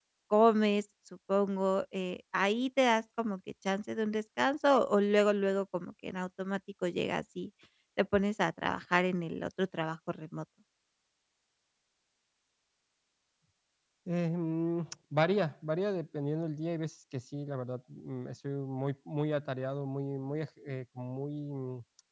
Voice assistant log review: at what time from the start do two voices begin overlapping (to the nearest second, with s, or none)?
none